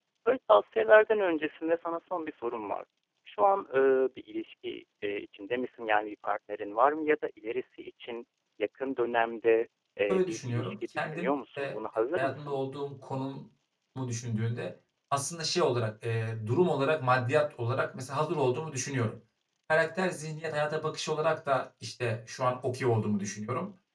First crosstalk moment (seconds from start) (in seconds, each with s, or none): 10.1 s